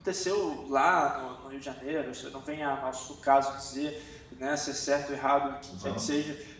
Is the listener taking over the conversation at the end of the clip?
No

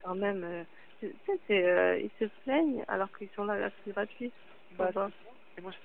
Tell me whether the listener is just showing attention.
No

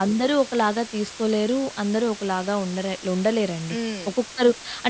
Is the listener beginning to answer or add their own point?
No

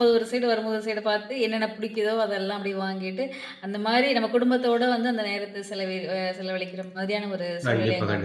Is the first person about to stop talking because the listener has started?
Yes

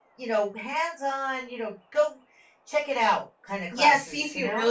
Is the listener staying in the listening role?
No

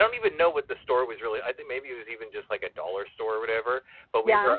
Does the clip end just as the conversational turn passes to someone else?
No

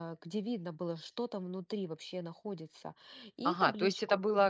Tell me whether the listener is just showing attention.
No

